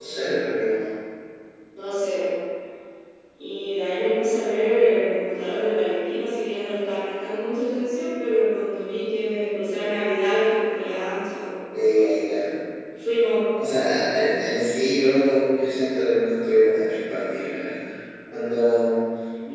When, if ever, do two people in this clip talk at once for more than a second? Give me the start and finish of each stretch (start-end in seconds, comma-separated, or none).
none